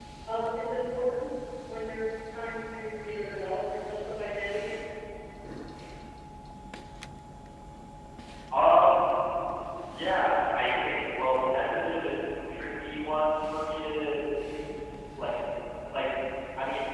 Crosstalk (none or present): none